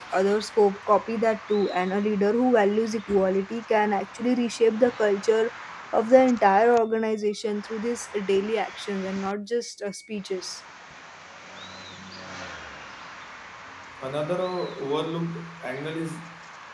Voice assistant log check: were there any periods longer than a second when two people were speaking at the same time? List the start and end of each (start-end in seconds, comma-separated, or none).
none